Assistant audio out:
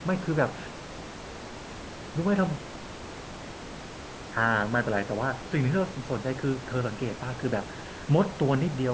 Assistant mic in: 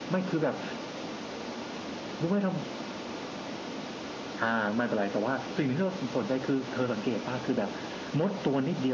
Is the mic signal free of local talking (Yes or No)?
Yes